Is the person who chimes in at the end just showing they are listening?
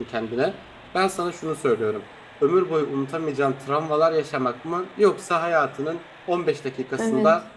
Yes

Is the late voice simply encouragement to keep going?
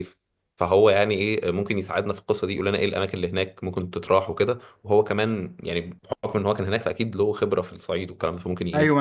No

